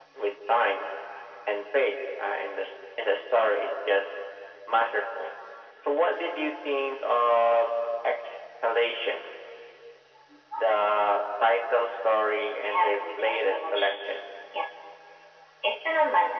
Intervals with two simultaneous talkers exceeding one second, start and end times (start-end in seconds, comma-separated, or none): 12.6-14.1